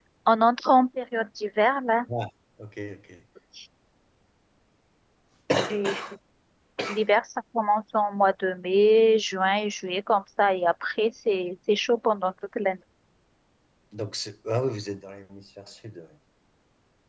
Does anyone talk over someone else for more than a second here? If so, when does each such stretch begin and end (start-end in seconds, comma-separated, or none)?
none